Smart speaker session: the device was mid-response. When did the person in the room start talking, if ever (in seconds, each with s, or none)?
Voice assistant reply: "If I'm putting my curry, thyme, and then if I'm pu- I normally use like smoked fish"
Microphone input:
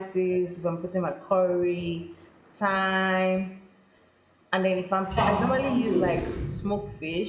5.1 s